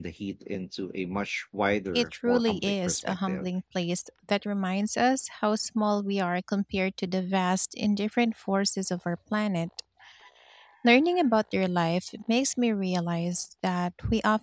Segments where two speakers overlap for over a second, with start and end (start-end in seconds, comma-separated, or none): 1.9-3.5